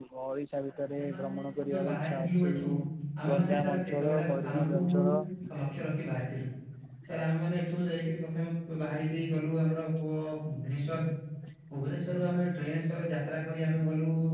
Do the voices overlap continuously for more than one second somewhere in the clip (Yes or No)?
Yes